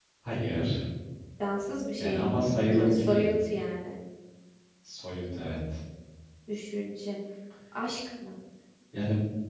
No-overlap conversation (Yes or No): No